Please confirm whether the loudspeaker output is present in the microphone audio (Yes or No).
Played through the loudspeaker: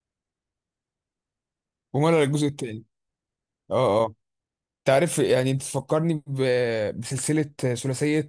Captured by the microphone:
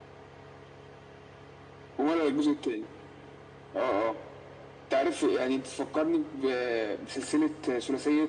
Yes